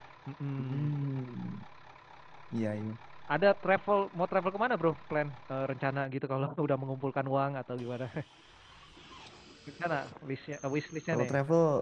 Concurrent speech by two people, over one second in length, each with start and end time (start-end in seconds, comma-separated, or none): none